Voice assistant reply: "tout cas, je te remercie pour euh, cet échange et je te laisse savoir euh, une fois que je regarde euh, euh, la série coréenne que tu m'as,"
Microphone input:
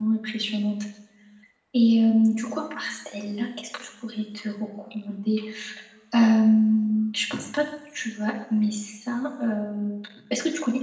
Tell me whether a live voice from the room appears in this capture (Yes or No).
Yes